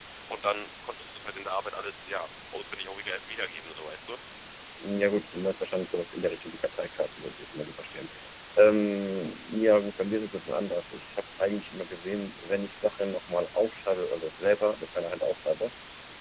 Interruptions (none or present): none